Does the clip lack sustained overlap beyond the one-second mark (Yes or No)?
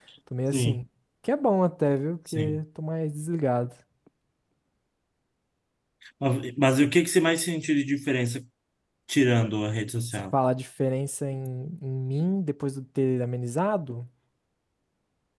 Yes